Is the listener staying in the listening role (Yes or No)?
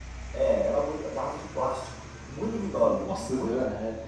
No